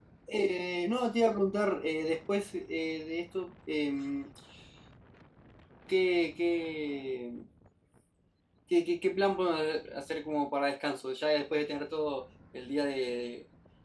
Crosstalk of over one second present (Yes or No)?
No